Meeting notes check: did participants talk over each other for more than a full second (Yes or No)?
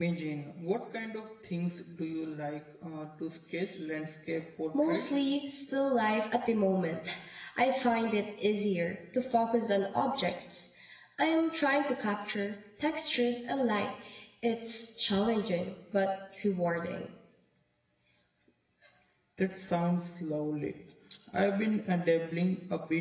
No